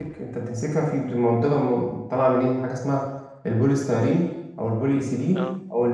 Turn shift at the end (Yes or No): No